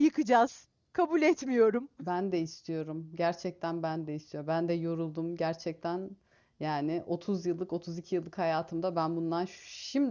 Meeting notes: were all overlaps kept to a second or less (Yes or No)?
Yes